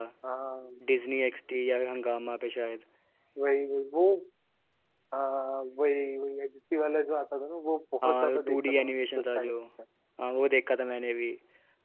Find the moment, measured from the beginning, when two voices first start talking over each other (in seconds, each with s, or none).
8.0 s